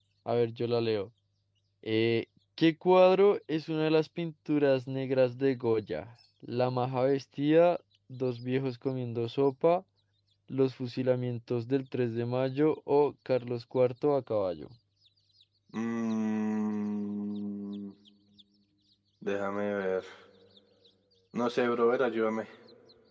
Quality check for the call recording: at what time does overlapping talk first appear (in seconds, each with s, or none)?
none